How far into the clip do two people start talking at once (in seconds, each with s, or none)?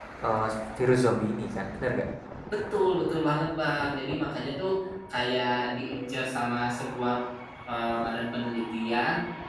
none